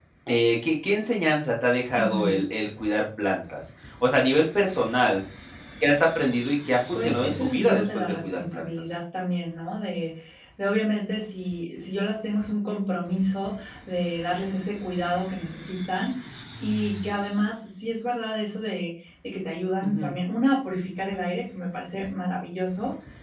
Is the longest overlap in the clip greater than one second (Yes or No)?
Yes